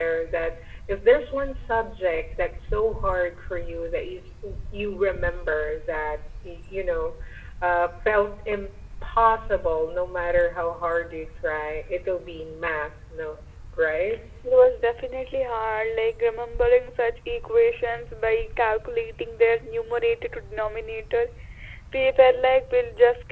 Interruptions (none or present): none